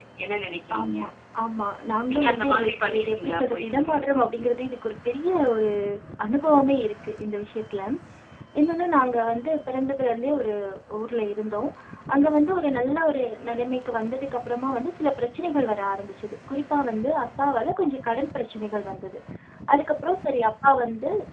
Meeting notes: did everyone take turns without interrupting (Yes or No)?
No